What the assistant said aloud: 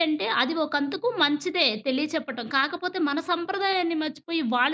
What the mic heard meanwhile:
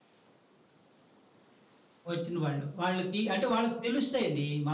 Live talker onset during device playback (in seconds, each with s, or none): 2.1 s